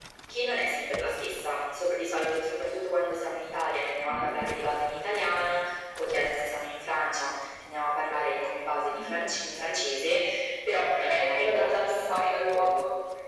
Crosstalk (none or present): present